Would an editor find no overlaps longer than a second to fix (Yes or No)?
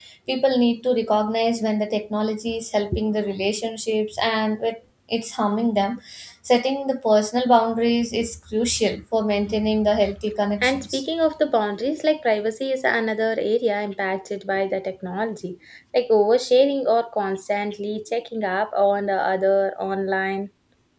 Yes